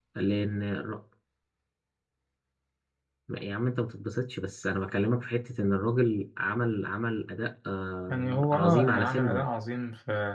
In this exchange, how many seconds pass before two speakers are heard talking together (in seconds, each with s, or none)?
8.1 s